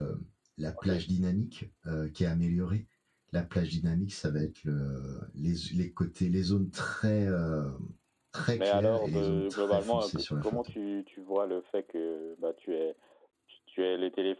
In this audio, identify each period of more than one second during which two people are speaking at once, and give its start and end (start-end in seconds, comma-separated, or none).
8.6-10.6